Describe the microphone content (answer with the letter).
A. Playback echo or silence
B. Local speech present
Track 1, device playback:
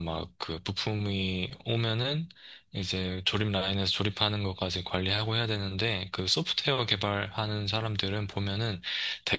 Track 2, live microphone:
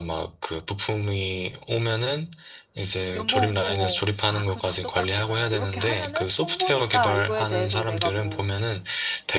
B